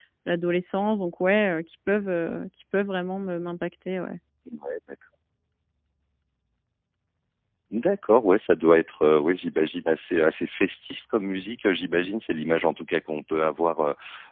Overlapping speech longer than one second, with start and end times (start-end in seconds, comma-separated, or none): none